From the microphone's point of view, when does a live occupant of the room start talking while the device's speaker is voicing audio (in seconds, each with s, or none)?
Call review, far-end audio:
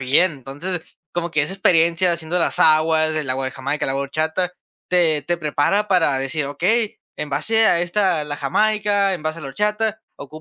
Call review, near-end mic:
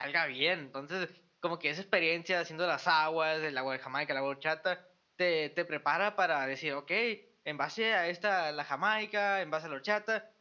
none